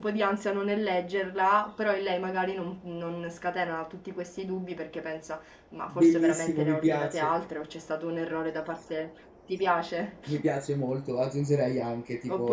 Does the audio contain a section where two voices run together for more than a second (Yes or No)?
Yes